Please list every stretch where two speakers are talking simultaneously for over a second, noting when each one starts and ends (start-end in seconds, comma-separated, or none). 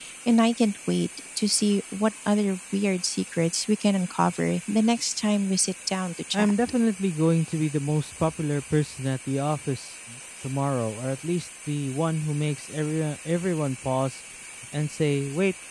none